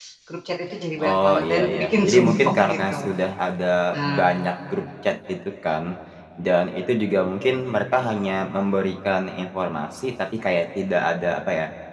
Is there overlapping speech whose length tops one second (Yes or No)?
Yes